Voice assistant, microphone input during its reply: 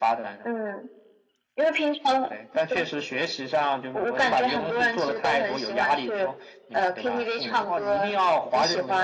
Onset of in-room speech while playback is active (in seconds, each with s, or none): none